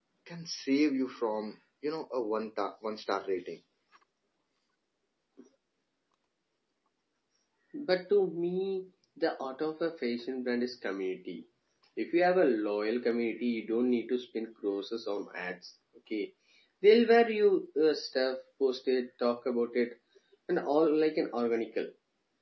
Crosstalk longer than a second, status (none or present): none